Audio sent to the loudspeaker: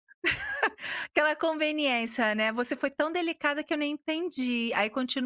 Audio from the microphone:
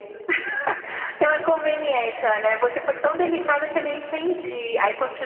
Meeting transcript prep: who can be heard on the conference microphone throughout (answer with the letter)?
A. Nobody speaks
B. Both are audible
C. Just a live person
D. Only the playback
D